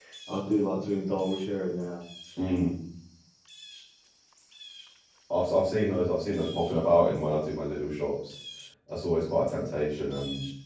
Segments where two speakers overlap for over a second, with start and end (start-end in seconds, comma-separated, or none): none